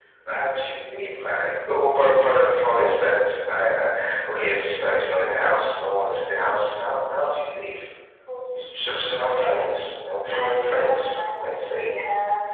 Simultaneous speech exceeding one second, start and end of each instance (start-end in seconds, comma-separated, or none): 10.3-11.9